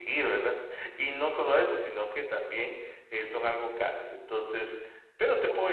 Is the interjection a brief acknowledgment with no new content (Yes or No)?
No